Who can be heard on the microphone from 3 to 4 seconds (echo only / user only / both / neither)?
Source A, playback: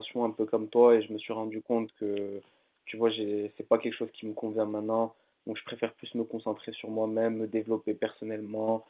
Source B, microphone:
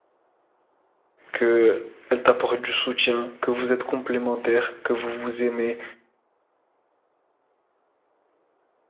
user only